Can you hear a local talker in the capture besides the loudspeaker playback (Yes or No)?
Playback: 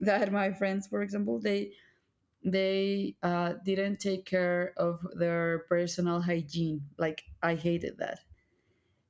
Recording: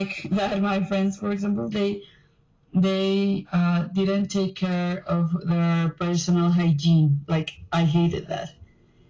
No